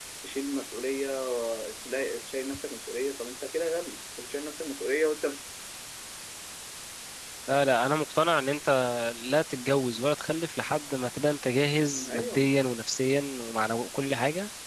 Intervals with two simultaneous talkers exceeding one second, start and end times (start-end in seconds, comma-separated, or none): none